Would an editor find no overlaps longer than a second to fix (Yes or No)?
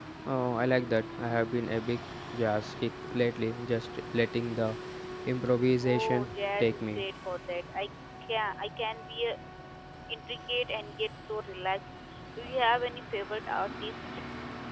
No